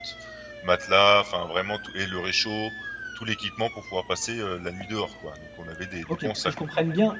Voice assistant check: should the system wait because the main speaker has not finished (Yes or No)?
No